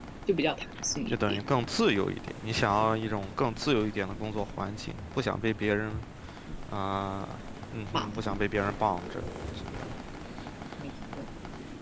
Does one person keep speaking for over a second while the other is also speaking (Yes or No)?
No